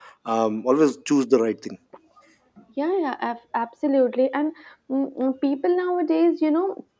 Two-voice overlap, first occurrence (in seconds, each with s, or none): none